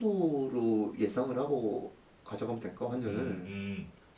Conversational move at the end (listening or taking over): taking over